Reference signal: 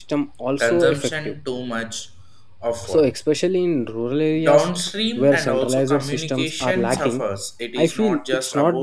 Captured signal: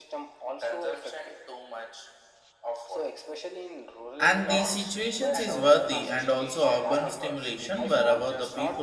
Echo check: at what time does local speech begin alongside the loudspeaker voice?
4 s

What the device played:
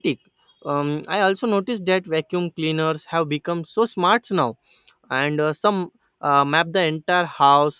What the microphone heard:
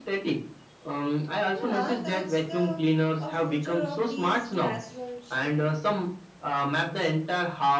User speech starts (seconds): 1 s

